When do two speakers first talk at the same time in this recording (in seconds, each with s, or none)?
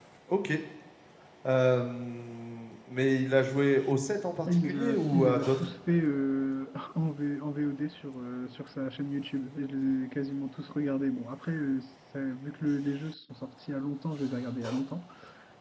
4.5 s